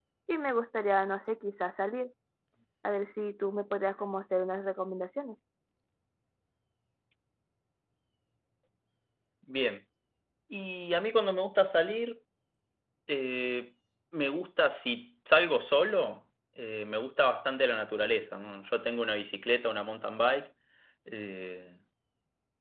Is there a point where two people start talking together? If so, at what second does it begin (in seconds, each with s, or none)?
none